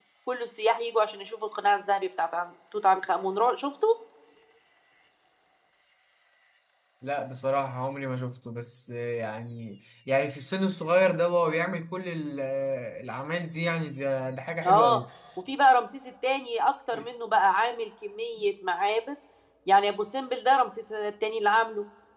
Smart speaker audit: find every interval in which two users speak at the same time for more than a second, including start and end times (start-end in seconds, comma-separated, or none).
none